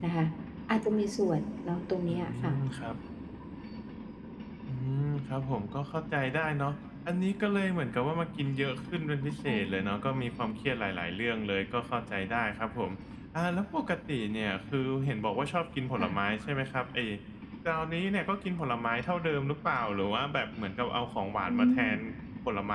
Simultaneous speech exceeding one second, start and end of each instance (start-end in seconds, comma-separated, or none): none